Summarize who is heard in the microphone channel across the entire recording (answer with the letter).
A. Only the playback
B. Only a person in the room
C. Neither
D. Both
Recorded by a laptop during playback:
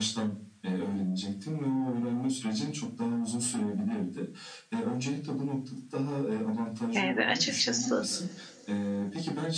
D